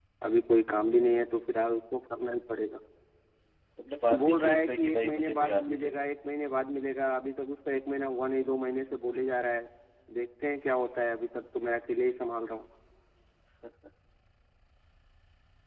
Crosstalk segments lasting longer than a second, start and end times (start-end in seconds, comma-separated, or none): 4.2-6.0